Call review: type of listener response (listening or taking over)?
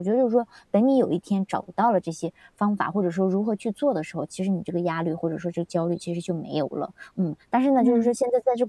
listening